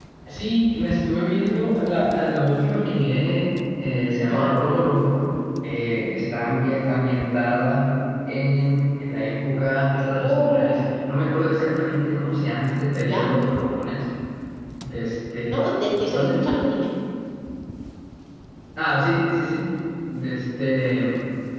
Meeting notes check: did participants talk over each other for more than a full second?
No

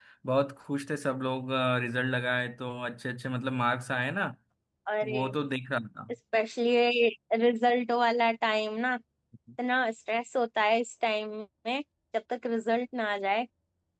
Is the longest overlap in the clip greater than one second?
No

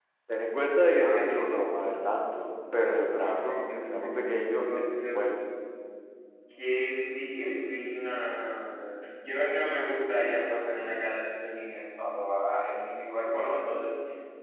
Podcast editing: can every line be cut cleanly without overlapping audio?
No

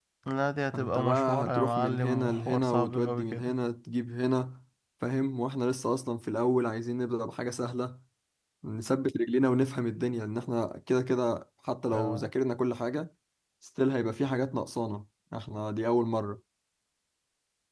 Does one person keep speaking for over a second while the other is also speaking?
Yes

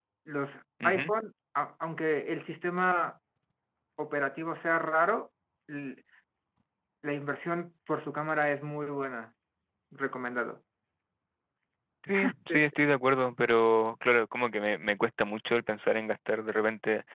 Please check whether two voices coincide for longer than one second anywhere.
No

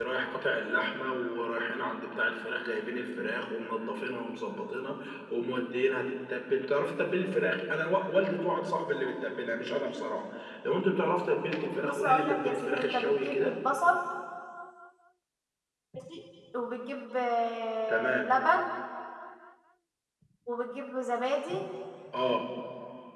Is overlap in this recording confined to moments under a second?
No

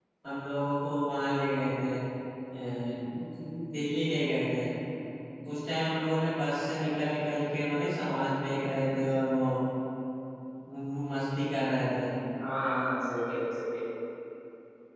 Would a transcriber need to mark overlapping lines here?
No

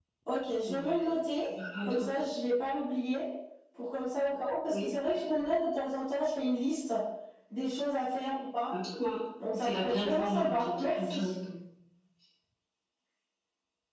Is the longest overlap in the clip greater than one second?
Yes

